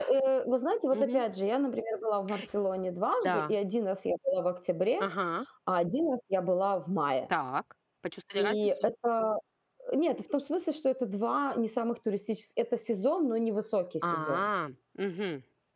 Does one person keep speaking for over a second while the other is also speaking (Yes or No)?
No